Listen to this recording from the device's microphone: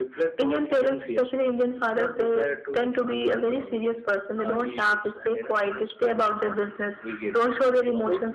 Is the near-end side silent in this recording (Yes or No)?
Yes